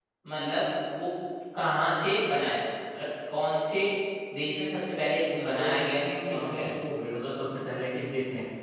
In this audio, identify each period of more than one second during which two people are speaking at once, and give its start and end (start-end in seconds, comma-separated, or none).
5.4-6.7